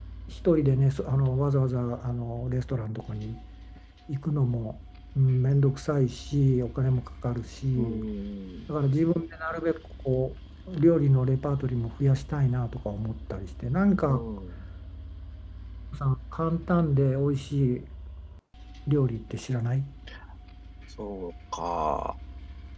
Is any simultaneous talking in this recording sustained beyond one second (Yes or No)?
No